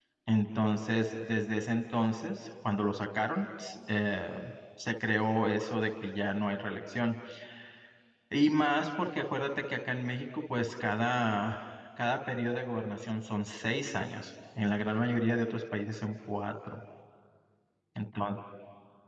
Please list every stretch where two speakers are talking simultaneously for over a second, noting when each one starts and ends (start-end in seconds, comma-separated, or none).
none